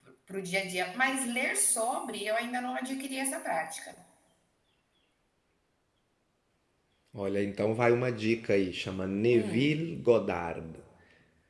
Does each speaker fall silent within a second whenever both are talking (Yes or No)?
Yes